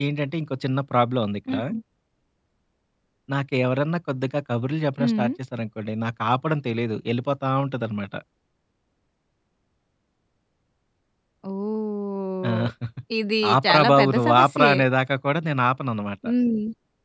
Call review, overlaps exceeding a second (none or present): present